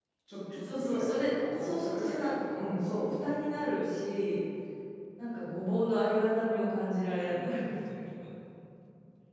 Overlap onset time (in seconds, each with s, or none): 0.6 s